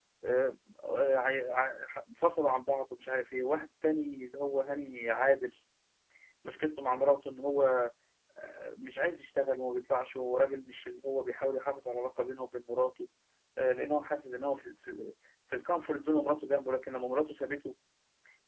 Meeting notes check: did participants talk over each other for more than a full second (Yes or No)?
No